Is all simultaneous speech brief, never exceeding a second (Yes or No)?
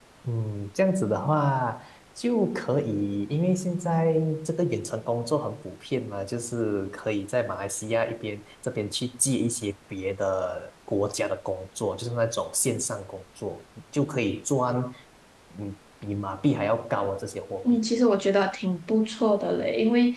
Yes